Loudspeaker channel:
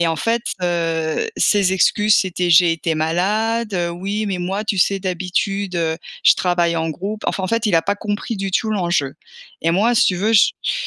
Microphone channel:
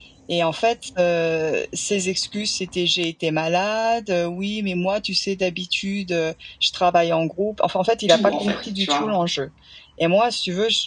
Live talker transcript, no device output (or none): tout en fait, tu vois?